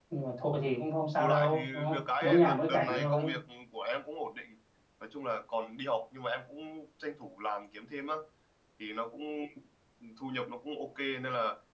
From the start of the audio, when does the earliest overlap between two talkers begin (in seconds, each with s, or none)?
1.2 s